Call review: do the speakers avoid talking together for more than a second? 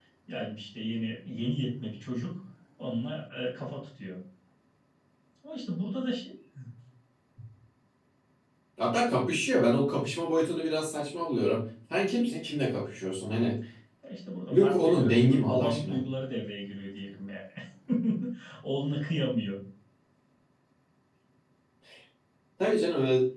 No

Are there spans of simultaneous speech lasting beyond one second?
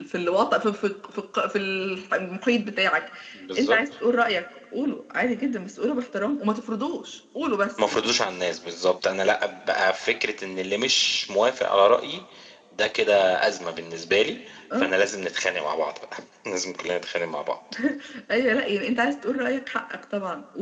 No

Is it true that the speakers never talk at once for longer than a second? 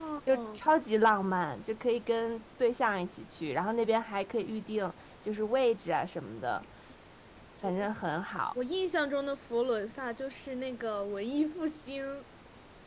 Yes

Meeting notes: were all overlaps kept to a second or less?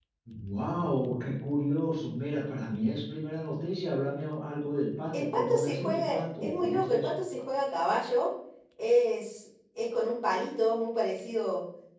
No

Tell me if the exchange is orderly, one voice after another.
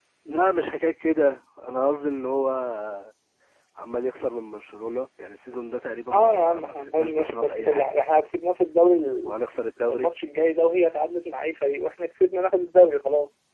No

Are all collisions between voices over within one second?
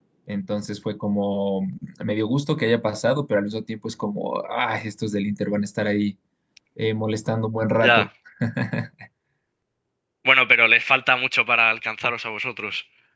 Yes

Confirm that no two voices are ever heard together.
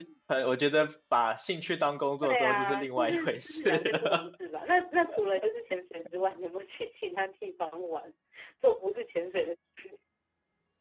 No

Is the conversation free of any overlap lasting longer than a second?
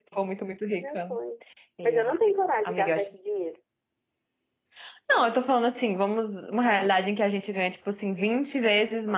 Yes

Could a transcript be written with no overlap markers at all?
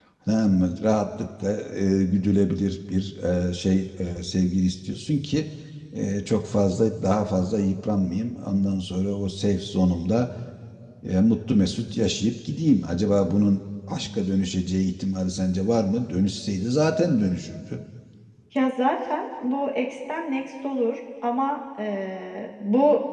Yes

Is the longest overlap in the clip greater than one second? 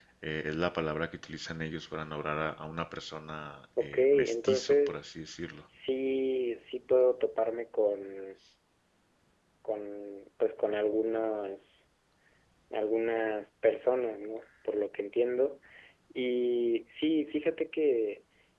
Yes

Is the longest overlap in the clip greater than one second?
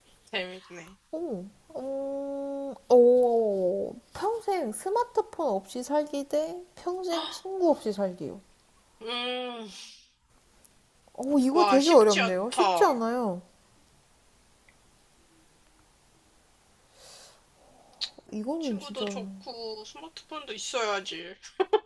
Yes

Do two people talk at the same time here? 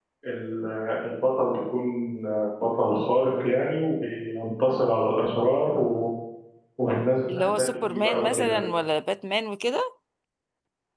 Yes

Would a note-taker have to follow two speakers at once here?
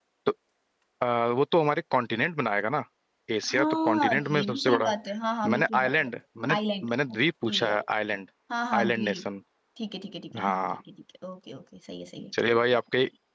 Yes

